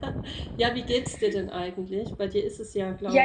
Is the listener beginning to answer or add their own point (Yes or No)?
Yes